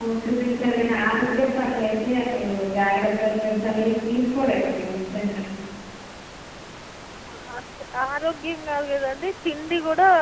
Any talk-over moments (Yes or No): No